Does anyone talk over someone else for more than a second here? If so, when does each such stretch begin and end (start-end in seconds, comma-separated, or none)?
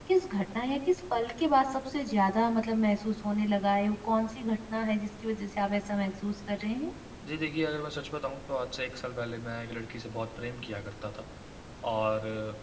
none